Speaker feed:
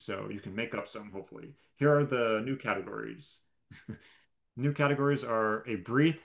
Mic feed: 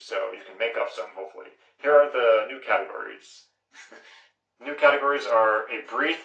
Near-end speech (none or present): none